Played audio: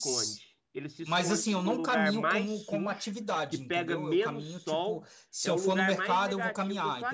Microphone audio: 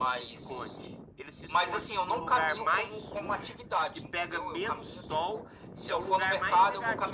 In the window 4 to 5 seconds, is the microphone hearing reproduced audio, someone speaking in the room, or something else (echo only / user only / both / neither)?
echo only